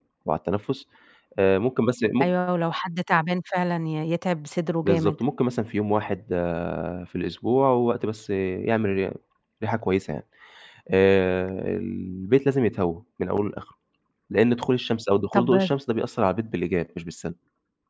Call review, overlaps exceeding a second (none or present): none